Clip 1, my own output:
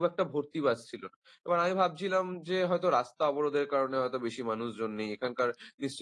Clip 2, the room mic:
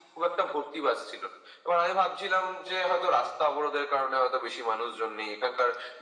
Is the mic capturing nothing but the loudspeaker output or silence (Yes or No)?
Yes